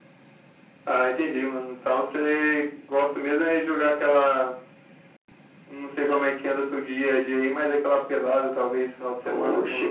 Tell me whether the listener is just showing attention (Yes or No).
No